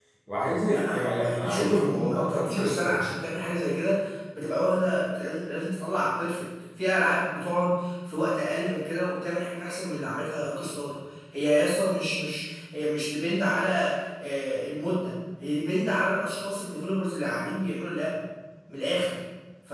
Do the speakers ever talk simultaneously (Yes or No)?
Yes